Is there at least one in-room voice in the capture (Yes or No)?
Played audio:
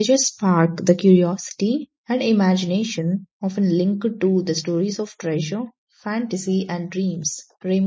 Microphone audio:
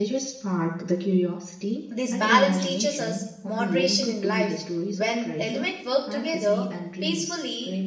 Yes